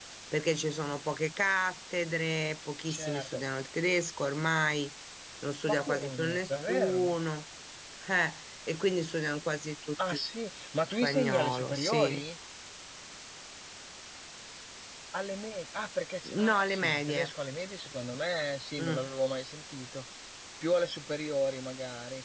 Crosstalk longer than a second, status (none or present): present